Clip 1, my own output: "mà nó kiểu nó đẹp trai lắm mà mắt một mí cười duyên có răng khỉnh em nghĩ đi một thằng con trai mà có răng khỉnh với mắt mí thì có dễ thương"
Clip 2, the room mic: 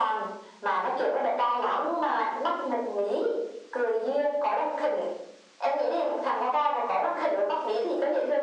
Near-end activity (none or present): none